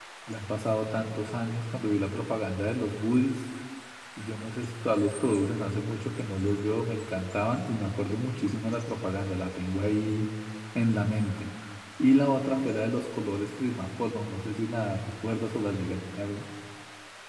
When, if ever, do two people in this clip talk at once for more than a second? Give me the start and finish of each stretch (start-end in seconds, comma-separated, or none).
none